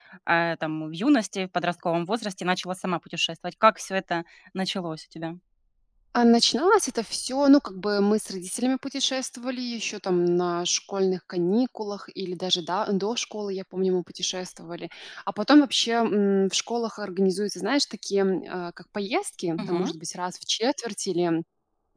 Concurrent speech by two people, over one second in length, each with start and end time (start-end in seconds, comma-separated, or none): none